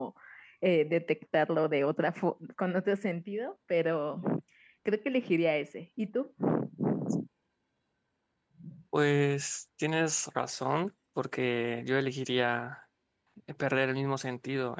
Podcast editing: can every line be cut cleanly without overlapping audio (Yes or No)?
Yes